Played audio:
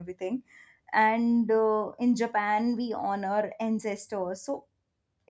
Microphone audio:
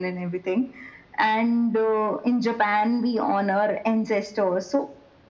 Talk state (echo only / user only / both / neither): echo only